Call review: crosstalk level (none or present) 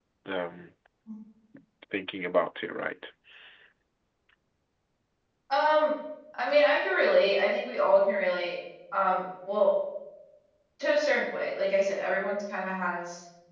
none